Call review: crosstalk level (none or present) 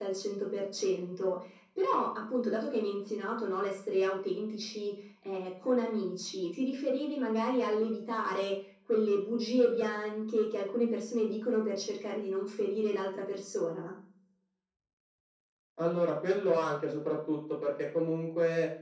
none